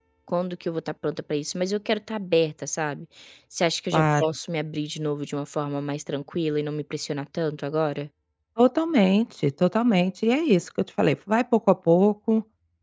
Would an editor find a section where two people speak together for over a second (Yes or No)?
No